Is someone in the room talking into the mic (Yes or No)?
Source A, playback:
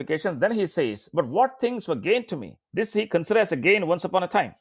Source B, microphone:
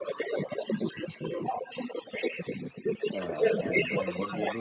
Yes